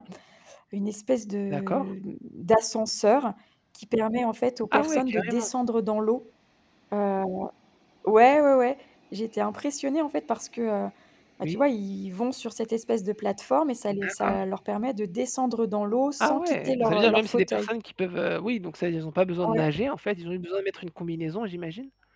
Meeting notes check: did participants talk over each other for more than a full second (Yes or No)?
Yes